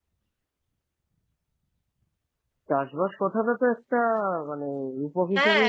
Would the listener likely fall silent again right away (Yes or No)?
No